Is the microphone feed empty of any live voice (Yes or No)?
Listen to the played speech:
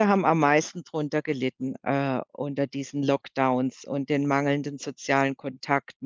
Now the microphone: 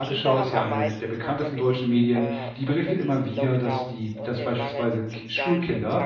No